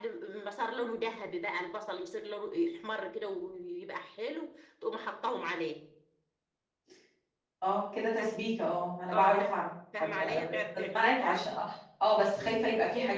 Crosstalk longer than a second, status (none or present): present